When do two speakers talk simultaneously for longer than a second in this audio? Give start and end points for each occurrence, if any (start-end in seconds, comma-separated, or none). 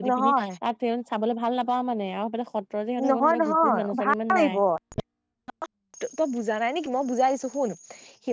3.1-4.5